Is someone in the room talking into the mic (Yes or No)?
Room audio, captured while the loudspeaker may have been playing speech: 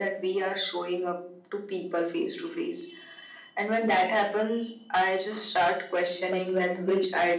Yes